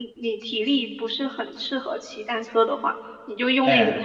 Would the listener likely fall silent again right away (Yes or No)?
Yes